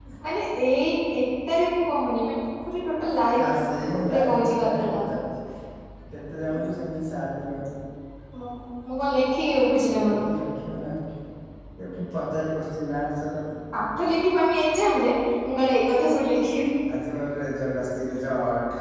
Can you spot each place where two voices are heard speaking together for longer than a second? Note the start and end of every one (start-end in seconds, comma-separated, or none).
3.4-5.0